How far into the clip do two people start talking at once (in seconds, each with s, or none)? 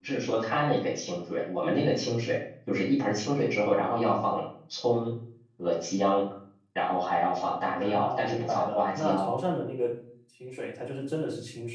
7.8 s